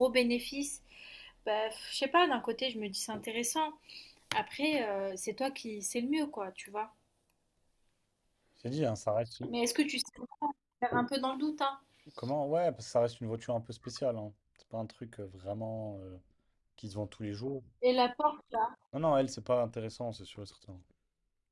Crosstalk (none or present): none